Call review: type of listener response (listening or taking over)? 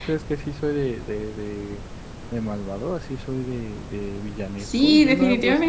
taking over